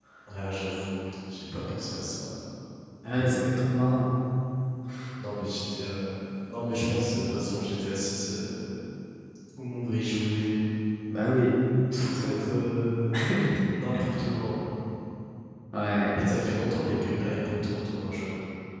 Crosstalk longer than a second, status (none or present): none